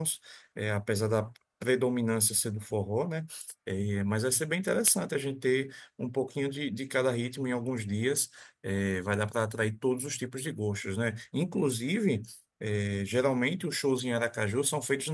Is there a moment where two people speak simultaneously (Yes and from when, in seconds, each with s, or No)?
No